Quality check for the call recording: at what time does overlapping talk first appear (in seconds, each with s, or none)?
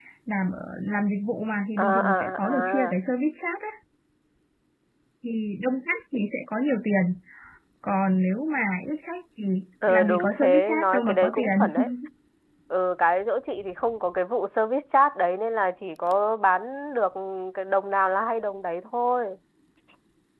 1.8 s